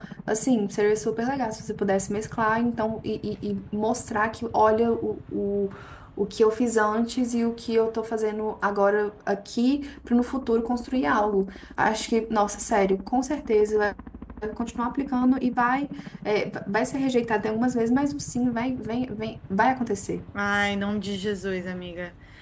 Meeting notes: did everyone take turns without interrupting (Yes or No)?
Yes